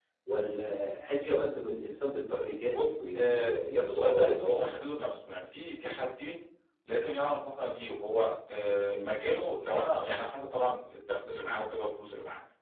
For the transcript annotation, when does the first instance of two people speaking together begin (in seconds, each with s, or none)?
2.7 s